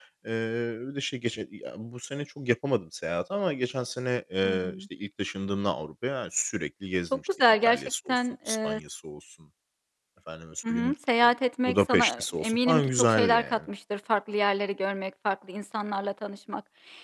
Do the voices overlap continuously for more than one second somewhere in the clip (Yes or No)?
Yes